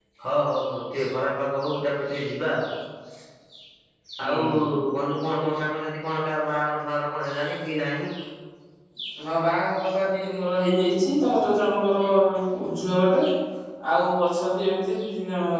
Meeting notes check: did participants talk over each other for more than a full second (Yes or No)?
No